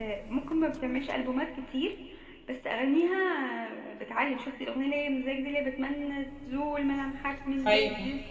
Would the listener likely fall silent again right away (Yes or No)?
No